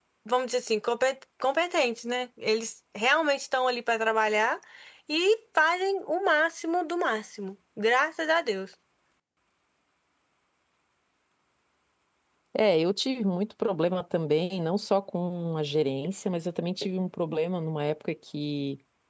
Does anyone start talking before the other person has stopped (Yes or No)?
No